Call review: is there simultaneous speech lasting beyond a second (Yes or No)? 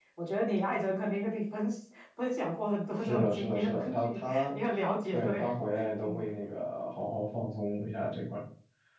Yes